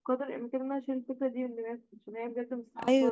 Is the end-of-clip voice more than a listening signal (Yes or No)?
Yes